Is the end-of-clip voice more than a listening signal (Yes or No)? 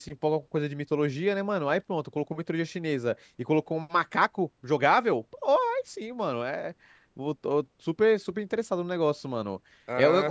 No